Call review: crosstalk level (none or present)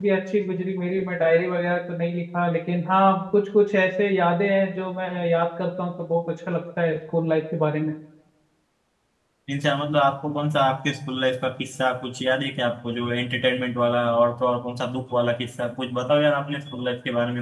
none